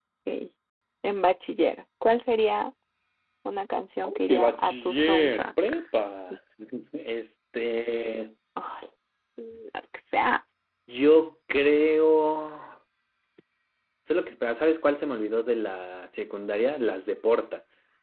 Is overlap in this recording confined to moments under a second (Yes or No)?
No